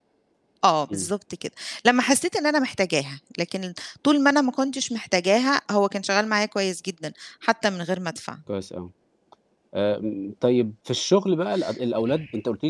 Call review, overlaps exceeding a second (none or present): none